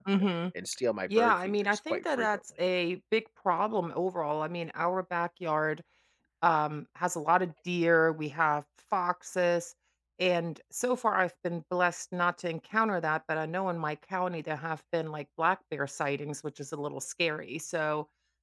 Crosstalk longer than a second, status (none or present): present